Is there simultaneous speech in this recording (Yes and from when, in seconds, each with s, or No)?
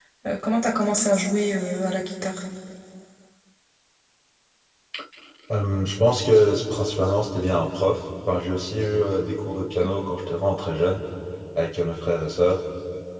No